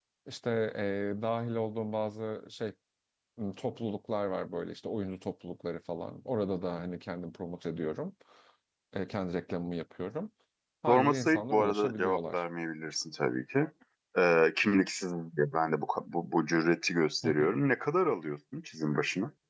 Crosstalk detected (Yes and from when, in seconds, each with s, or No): Yes, from 10.9 s